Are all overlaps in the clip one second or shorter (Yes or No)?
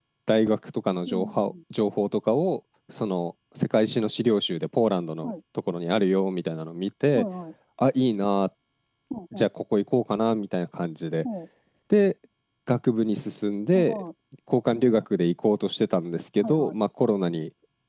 Yes